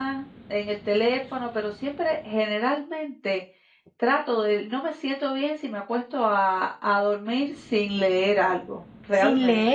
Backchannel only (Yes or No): No